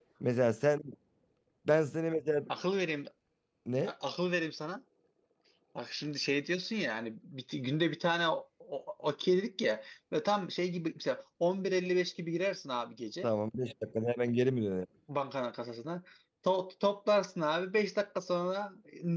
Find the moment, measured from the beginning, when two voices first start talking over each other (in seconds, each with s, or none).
none